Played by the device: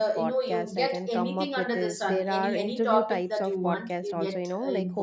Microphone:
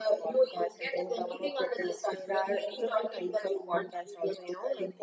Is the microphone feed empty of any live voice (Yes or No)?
Yes